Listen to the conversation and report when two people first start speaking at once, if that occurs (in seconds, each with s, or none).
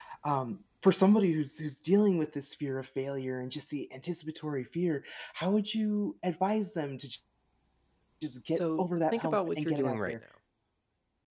8.5 s